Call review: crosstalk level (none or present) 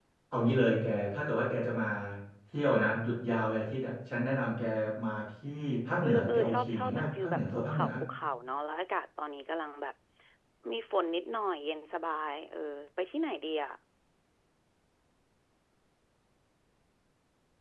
present